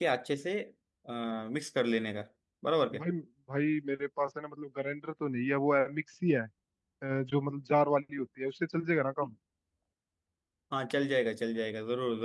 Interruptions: none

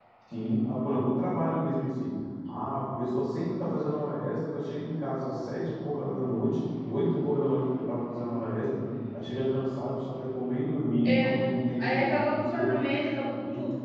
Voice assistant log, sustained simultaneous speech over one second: present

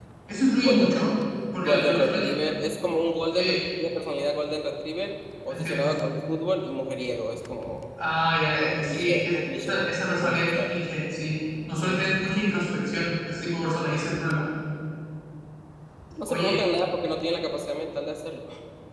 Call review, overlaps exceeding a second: present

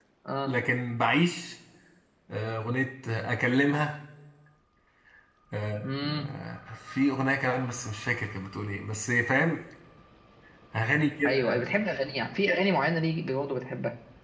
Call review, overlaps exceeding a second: none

